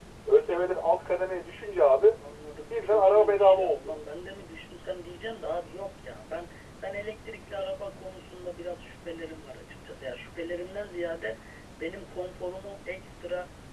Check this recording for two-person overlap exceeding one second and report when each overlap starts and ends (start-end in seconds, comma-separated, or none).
2.7-3.9